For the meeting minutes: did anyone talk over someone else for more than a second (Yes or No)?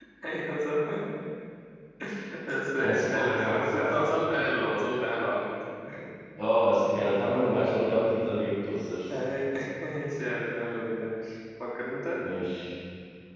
Yes